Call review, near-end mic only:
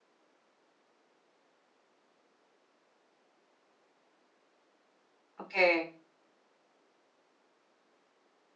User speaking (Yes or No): Yes